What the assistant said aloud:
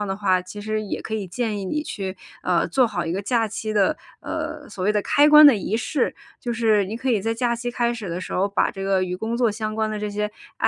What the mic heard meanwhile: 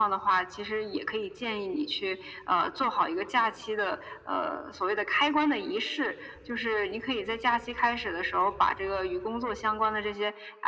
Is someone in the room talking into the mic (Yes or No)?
No